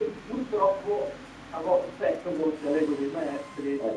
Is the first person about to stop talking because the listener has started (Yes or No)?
No